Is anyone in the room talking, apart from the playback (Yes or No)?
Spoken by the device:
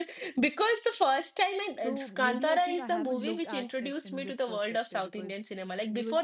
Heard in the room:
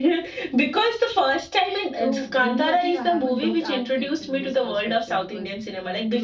No